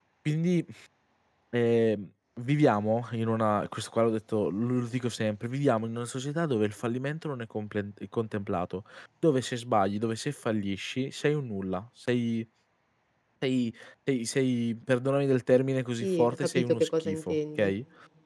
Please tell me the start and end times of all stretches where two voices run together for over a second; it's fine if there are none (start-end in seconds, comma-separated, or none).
16.0-17.7